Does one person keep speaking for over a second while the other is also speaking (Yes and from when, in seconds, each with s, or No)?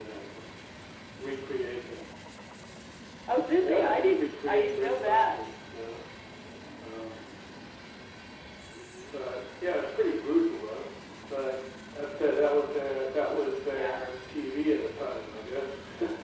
Yes, from 3.6 s